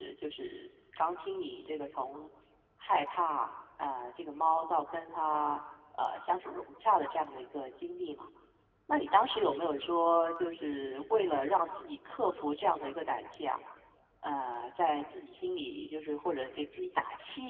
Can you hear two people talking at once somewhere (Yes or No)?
No